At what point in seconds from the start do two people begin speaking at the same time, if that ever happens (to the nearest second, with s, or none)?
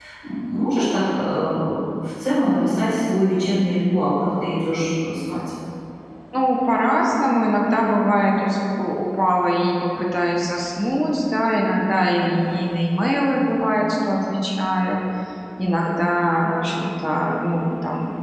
none